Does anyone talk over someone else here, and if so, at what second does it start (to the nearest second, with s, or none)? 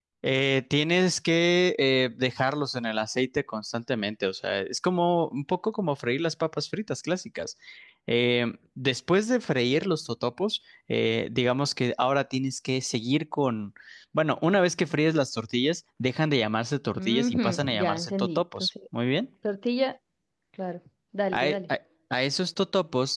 17 s